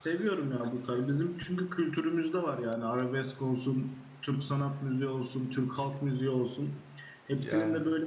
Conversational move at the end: listening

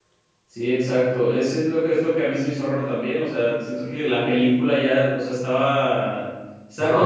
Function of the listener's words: listening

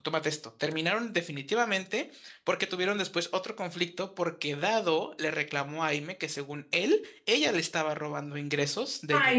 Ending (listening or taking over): taking over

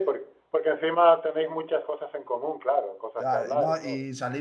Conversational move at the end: taking over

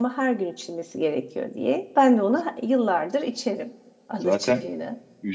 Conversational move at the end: taking over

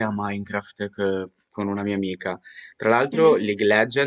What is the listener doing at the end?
listening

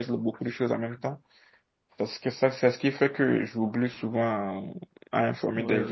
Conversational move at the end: taking over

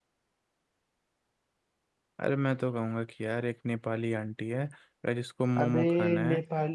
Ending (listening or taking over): taking over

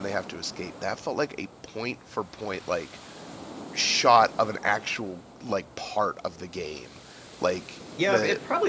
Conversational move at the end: taking over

